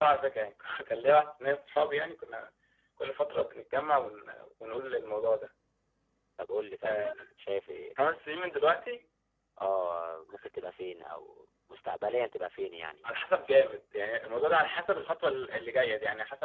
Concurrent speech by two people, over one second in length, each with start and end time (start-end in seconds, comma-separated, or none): none